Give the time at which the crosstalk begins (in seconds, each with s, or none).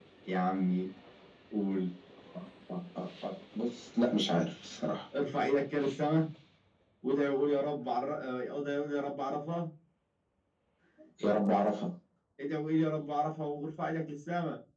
none